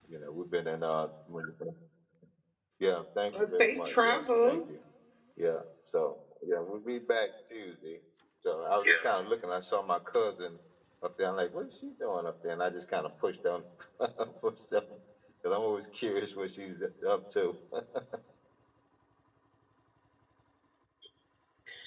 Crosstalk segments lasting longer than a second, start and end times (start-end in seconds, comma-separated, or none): 3.4-4.6